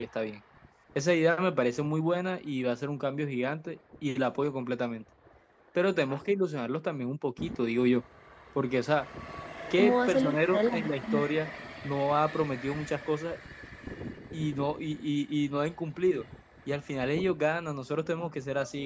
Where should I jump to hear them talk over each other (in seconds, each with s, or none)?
9.8 s